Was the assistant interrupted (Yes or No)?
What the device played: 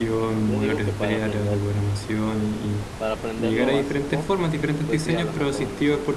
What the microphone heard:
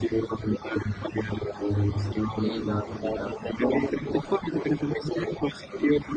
Yes